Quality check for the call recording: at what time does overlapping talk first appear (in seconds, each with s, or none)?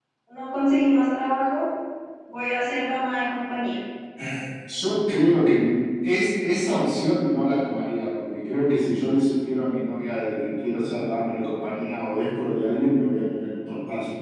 none